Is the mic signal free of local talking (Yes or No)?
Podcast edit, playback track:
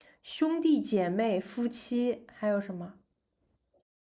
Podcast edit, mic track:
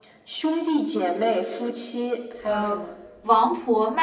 No